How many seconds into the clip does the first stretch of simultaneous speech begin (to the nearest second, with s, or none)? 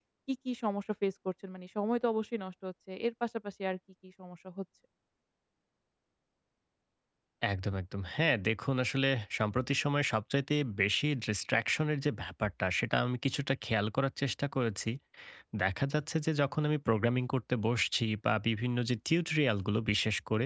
none